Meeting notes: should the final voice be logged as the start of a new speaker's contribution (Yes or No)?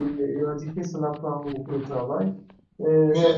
No